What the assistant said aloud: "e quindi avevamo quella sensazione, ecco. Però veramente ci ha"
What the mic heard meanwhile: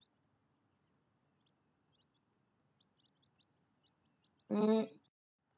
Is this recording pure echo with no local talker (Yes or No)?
No